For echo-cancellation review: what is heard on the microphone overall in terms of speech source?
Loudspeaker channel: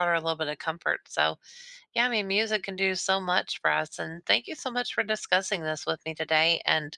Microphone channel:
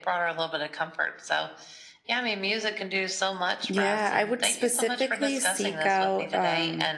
both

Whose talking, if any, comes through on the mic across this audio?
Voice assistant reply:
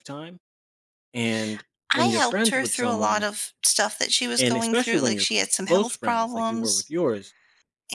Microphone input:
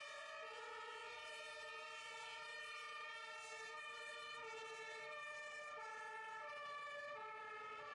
neither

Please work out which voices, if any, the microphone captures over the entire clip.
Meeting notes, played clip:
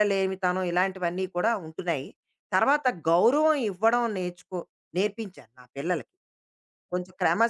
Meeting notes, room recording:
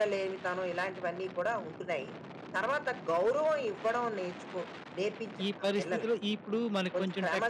both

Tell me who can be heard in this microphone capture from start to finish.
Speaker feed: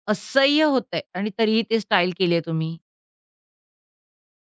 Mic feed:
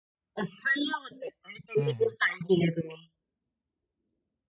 both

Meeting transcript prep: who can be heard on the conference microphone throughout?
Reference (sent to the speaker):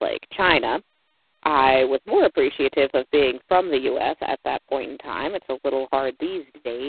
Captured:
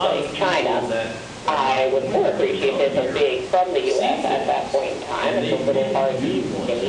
both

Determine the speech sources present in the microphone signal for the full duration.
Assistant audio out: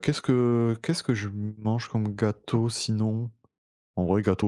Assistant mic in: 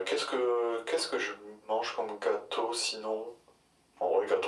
echo only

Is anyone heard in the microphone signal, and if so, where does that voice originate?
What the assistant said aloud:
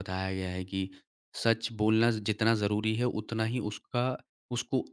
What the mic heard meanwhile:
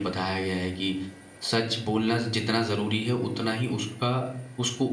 echo only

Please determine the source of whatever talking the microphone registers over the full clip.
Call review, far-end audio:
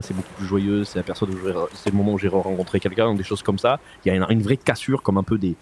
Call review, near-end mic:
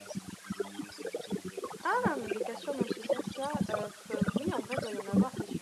both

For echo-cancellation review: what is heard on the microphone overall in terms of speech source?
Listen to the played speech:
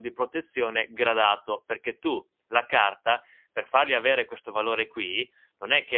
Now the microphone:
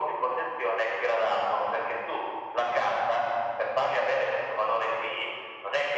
echo only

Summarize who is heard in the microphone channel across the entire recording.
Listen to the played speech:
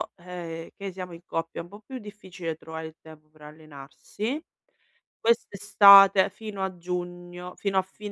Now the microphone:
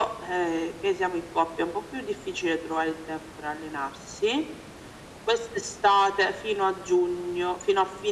echo only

